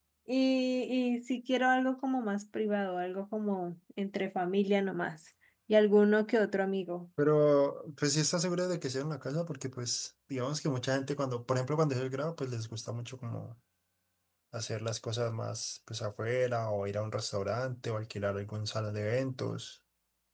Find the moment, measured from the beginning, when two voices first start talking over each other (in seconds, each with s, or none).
none